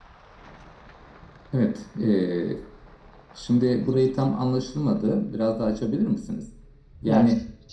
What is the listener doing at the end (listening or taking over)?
taking over